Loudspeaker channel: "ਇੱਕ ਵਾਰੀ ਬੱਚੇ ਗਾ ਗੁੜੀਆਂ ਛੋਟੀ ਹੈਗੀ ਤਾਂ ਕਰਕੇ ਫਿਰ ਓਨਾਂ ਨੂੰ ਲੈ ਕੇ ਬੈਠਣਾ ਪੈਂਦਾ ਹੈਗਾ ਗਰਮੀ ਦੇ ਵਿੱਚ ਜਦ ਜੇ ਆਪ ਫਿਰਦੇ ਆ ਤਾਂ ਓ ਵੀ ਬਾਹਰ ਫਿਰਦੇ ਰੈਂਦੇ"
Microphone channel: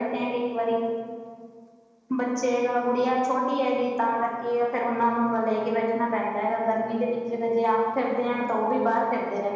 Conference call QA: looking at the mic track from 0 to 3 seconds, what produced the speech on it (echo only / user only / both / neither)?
echo only